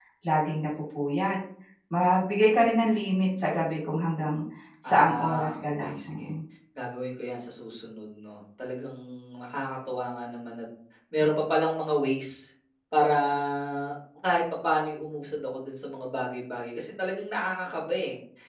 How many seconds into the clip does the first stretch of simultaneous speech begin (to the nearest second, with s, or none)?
5 s